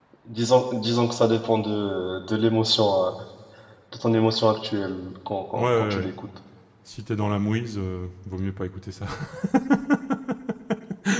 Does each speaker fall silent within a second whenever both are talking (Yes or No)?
Yes